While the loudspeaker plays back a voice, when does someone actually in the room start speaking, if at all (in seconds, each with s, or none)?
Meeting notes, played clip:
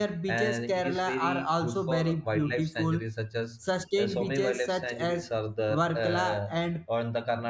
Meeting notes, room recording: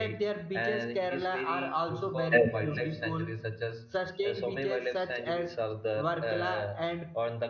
2.3 s